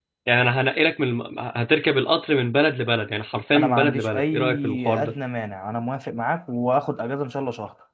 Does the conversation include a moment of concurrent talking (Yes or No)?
Yes